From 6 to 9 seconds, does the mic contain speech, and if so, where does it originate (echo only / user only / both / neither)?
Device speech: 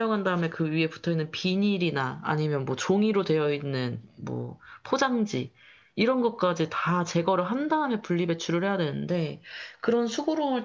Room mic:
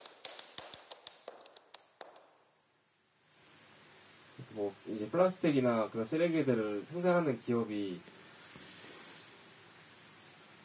user only